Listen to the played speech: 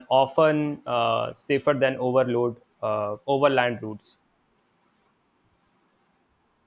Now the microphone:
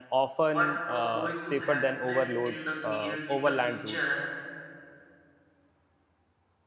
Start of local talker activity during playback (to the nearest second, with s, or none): 0 s